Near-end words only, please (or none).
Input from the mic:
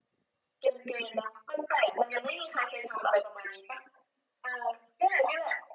none